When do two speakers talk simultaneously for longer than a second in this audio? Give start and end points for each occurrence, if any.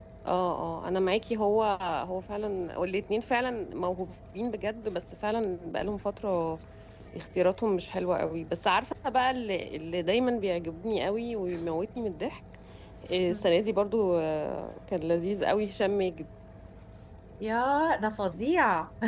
none

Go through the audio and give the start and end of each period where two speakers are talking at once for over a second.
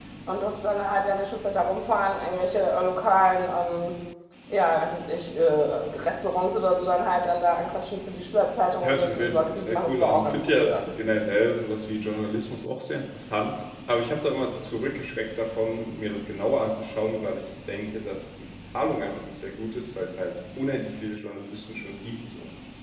8.8-10.8

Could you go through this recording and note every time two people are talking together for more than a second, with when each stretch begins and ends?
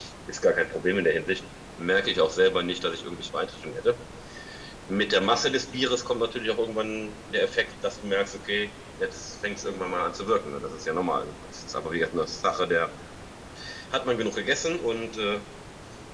none

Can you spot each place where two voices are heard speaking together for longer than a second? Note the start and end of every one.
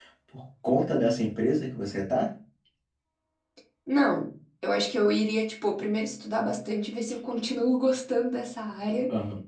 none

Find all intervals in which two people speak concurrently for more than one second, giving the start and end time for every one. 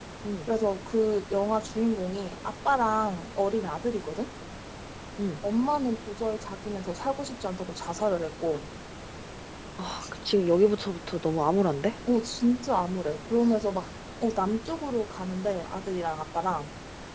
none

